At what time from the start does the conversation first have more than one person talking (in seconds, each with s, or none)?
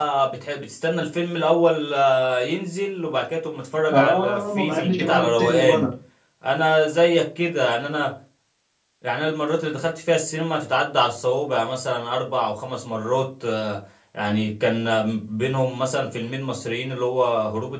3.9 s